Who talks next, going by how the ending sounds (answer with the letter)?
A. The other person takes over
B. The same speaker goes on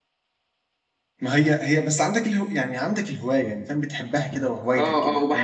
A